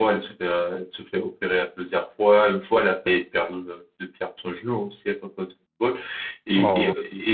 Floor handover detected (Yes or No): No